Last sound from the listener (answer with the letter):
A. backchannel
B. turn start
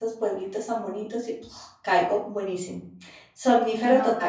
B